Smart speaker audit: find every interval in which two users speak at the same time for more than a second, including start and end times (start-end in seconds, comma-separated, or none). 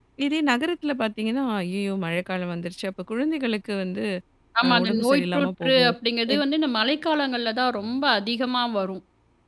4.6-5.9